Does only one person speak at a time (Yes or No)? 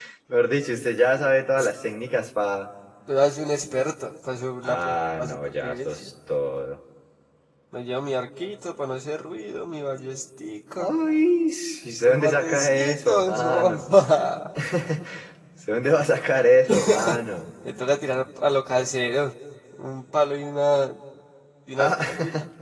No